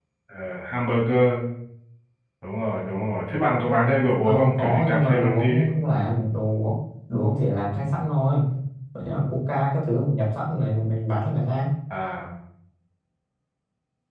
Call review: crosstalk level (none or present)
present